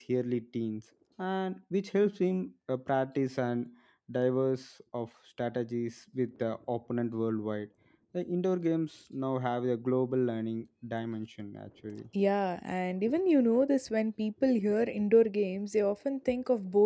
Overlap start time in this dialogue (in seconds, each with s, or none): none